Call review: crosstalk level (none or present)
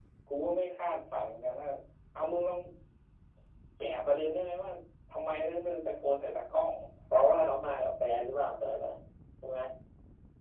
none